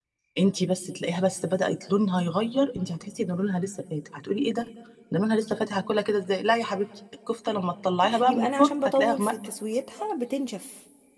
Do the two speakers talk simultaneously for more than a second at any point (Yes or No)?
Yes